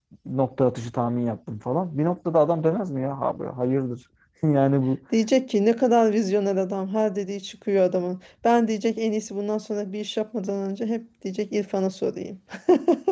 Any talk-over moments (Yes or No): No